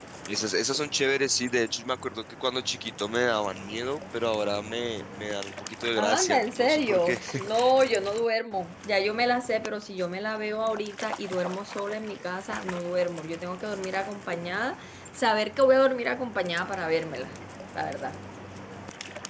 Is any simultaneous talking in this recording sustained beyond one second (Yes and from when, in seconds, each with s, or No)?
Yes, from 6.0 s